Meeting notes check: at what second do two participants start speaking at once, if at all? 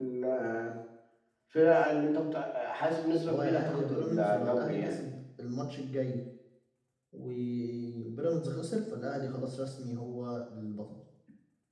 3.3 s

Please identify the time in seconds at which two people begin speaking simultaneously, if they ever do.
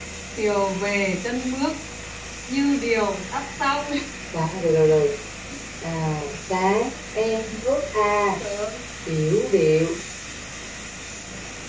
none

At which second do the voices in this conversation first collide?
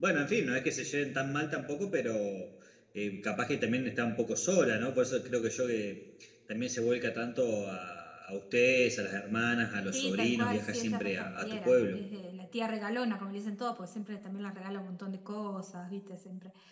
9.9 s

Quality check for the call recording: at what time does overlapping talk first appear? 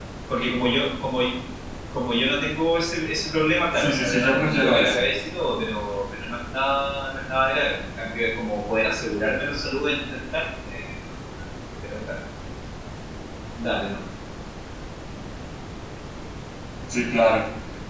3.7 s

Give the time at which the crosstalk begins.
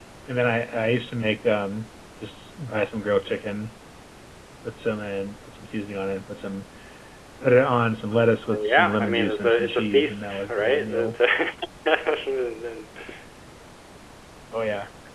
8.5 s

